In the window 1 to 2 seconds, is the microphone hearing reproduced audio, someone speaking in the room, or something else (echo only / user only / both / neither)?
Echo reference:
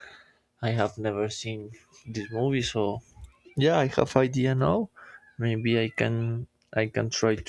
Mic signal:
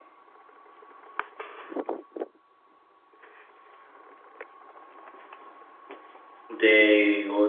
neither